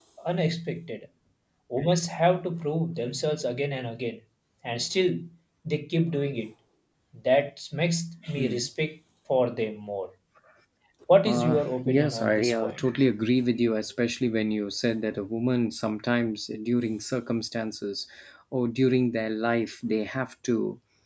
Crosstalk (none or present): present